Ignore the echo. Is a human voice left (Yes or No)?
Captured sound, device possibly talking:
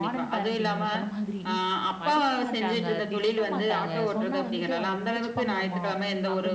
Yes